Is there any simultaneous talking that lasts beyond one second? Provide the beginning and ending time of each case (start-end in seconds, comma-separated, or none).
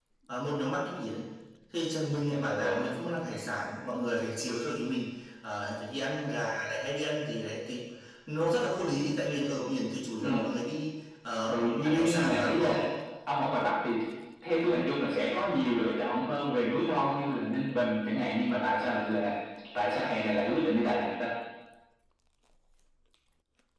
11.5-12.8